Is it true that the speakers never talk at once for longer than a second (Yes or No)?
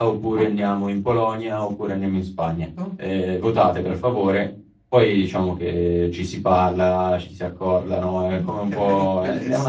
No